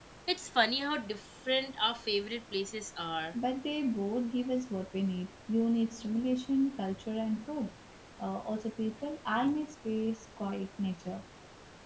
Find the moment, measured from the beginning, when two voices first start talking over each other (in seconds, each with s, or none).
none